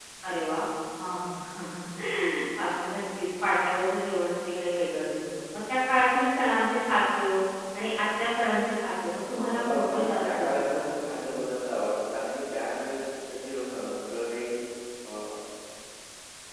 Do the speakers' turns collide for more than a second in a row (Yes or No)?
Yes